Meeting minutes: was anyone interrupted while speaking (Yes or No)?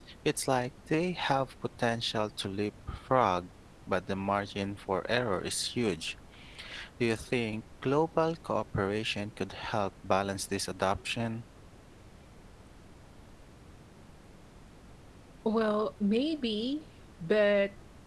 No